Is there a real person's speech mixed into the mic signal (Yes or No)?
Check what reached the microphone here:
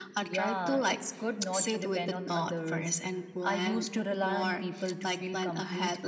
No